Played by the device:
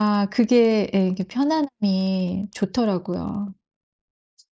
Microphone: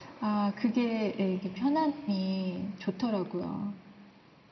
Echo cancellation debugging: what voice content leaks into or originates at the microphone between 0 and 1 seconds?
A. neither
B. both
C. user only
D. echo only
D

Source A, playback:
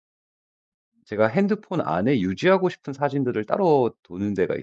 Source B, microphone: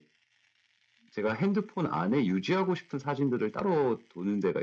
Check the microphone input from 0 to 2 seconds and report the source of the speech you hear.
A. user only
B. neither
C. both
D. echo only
D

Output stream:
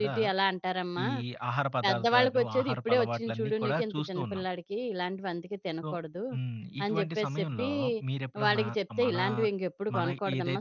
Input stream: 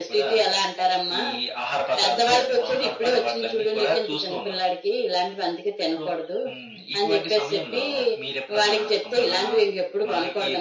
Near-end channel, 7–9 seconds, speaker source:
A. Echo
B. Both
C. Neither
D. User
A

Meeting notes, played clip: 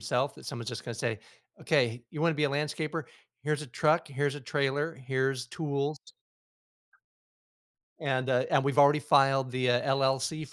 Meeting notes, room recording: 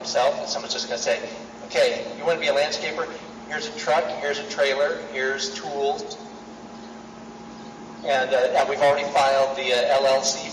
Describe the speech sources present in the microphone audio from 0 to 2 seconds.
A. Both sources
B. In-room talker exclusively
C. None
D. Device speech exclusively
D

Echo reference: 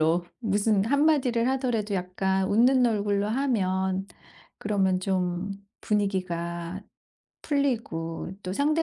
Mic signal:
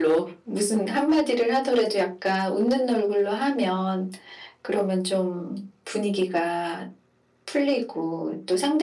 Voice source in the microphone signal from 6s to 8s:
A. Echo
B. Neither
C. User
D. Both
A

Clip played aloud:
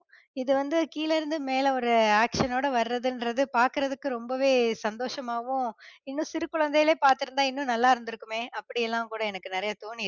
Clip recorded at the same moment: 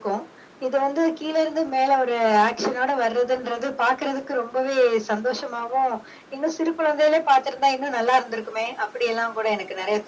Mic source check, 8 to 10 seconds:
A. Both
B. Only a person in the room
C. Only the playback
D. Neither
C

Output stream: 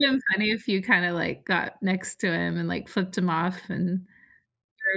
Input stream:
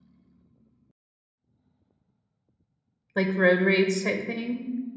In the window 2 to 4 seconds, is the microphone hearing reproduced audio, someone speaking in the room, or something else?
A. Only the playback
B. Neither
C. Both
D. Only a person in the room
D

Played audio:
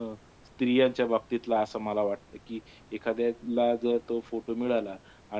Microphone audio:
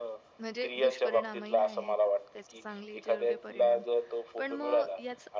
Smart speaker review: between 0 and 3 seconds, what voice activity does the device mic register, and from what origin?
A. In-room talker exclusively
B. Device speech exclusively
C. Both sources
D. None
C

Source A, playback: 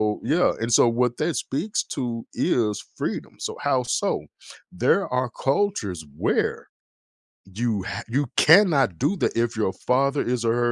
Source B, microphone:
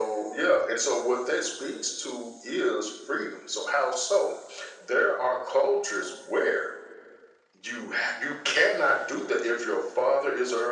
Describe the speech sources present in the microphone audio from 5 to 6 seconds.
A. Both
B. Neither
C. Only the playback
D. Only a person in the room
C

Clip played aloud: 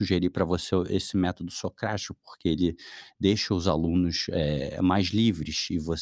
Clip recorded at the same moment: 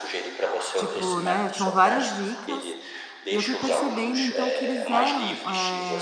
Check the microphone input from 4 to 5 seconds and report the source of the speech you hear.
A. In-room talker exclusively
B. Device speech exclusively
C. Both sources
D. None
C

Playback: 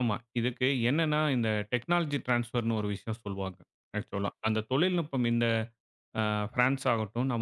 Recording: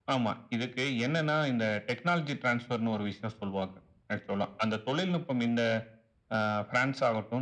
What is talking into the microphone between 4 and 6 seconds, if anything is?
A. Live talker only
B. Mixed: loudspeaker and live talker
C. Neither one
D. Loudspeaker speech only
D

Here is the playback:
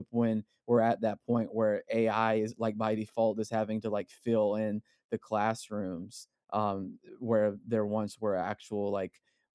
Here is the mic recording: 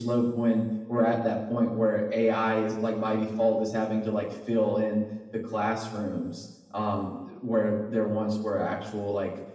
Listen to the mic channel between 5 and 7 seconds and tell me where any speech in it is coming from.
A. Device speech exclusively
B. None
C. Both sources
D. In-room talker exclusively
A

